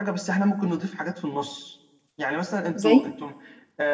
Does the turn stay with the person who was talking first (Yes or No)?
Yes